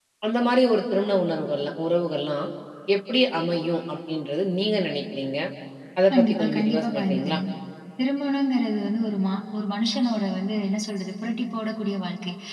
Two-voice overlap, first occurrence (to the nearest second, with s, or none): 6 s